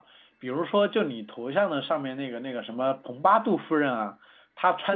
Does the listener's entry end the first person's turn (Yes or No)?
No